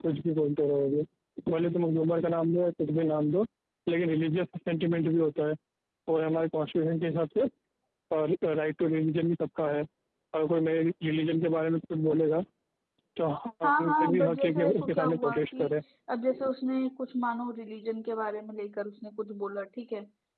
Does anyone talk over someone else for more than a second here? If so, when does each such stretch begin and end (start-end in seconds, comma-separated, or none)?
13.6-15.6